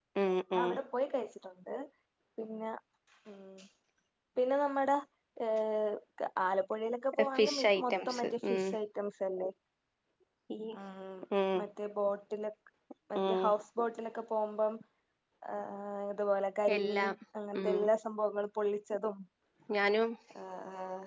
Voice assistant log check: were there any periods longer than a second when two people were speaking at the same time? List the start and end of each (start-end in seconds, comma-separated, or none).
7.3-8.7